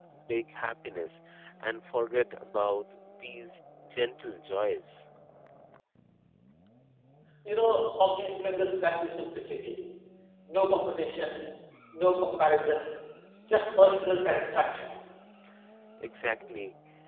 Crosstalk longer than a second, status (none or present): none